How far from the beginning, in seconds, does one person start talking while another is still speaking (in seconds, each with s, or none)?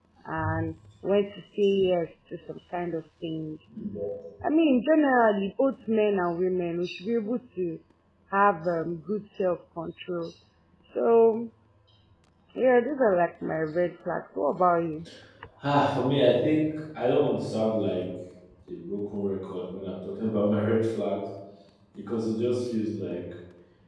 none